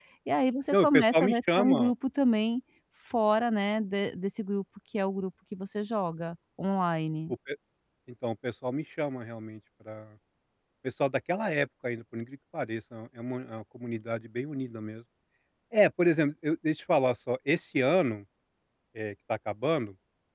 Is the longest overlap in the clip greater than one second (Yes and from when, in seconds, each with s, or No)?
Yes, from 0.7 s